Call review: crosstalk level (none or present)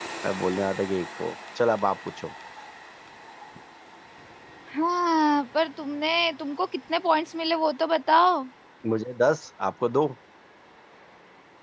none